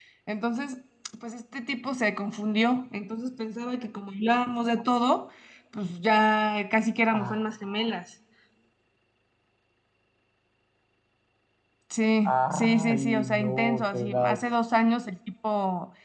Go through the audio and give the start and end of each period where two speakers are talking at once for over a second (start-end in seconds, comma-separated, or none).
12.2-14.4